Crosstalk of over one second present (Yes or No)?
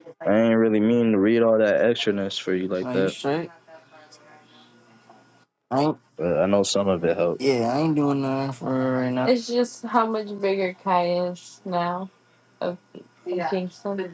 No